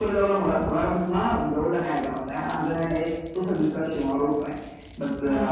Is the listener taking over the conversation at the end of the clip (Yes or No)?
No